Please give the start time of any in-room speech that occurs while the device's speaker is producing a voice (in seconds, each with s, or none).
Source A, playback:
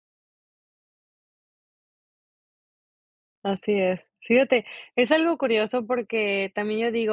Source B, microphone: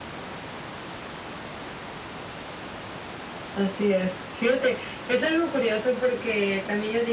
none